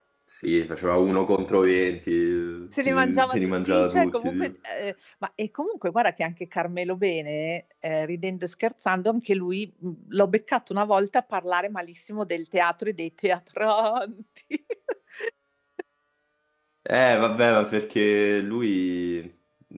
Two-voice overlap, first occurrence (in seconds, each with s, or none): 2.7 s